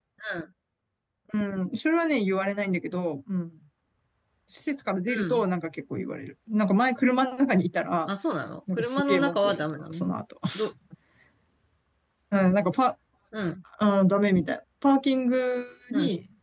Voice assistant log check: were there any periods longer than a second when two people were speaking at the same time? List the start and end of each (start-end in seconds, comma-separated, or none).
8.7-10.0